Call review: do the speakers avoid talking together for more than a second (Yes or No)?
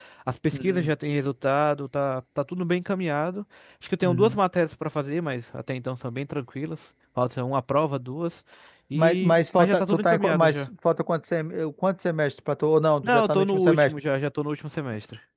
No